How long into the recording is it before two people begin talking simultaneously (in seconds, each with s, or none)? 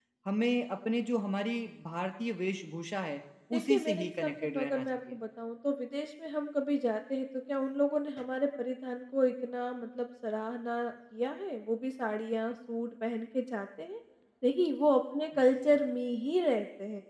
3.5 s